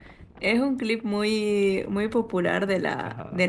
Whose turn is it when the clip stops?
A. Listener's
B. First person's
B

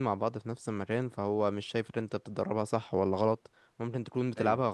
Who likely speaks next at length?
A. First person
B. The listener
A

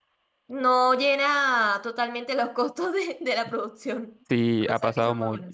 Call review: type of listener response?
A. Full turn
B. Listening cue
A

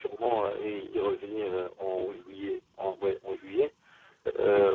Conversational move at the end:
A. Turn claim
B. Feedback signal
B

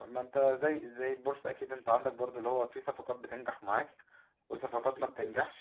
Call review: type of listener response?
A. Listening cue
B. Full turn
A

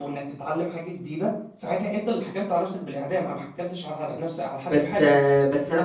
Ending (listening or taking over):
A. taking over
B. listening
A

